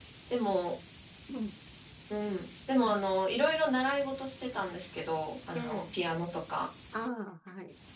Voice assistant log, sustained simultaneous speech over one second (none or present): none